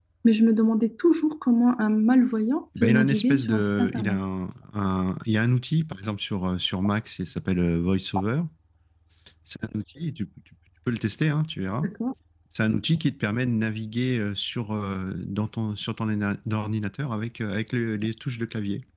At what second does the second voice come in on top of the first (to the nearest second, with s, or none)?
3 s